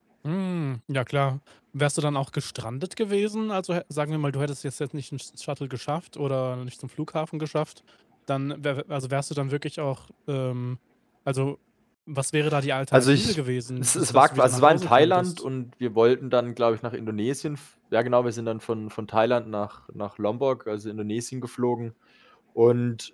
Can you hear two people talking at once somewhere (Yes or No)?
Yes